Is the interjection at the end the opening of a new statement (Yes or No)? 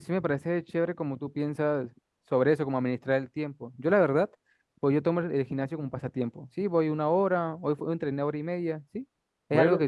No